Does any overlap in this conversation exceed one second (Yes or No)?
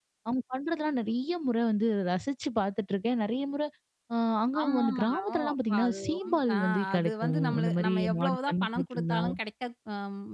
Yes